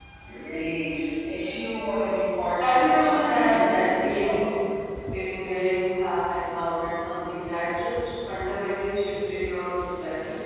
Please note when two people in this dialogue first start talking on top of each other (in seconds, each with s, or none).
2.6 s